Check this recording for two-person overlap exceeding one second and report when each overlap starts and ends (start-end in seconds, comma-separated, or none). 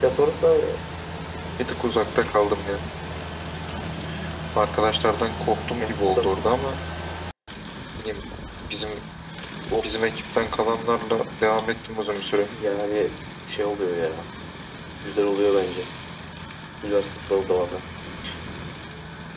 none